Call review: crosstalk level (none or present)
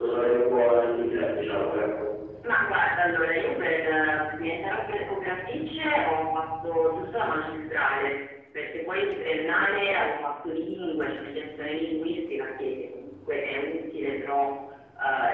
none